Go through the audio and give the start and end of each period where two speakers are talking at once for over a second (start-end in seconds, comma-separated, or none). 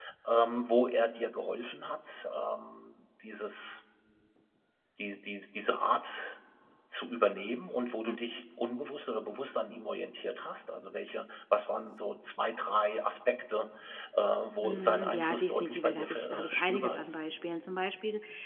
14.6-17.2